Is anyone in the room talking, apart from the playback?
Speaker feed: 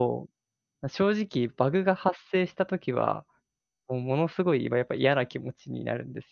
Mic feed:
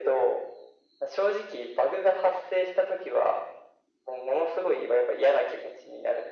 No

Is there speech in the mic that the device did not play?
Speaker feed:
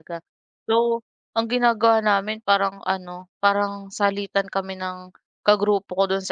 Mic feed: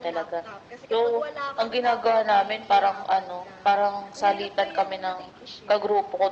Yes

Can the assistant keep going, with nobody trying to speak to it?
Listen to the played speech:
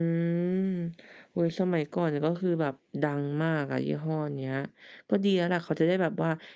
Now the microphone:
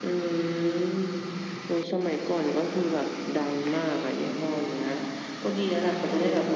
Yes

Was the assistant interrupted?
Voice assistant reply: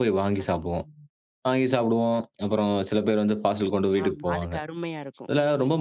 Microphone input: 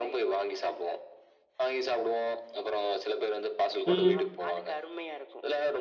Yes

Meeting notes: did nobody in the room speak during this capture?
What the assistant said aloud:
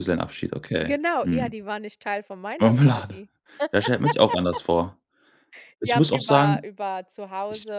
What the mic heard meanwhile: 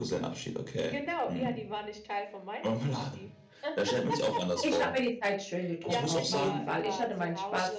No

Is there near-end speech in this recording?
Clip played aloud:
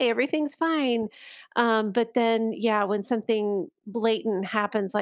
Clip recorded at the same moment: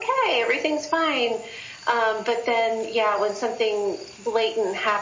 No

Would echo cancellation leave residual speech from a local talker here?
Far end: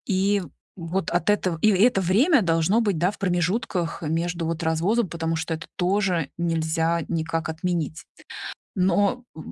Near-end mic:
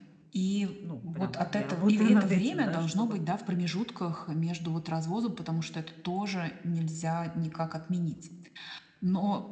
Yes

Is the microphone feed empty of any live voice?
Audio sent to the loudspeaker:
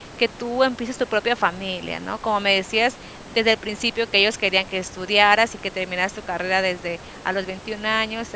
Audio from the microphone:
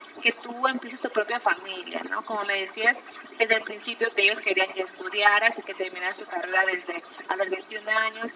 Yes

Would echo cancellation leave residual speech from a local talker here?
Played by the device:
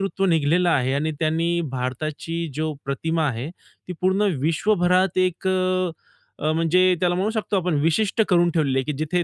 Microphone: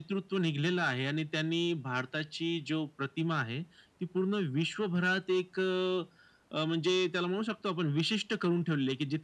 No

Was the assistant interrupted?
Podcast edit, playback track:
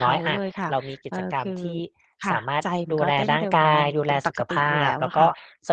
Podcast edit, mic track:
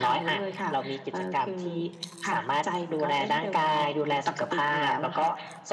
No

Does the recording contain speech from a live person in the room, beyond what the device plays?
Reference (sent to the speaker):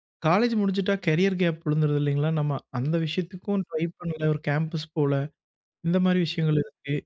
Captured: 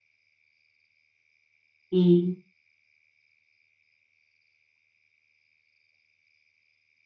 Yes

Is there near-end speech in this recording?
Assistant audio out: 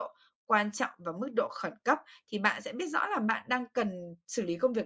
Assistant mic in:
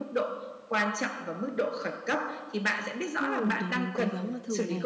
Yes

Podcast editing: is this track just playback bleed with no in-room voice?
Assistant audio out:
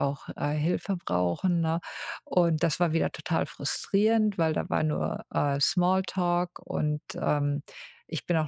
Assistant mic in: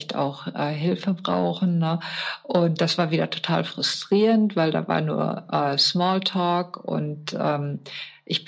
Yes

